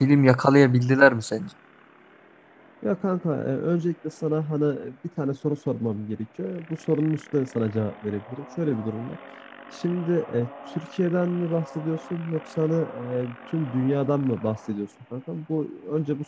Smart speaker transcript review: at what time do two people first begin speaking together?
none

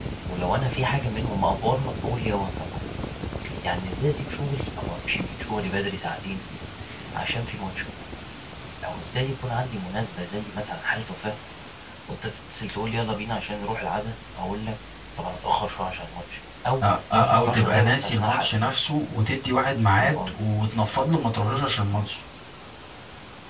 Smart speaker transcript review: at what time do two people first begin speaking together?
16.8 s

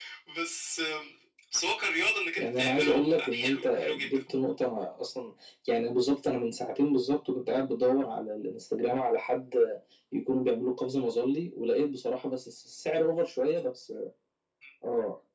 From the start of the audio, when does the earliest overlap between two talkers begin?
2.4 s

